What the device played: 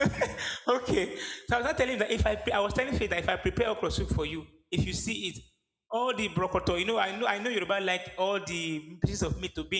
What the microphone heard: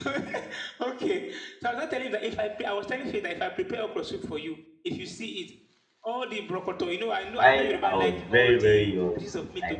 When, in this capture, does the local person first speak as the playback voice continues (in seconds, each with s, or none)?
7.3 s